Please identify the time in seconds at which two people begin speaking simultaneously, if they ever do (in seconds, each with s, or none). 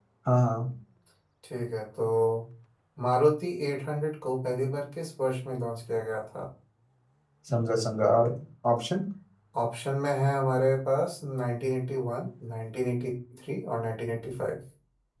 none